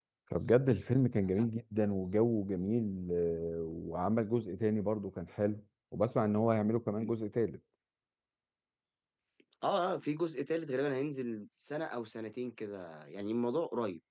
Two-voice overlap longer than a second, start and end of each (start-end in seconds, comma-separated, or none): none